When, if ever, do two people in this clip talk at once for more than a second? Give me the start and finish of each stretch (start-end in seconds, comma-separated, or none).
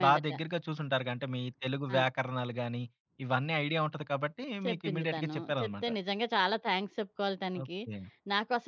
4.6-5.9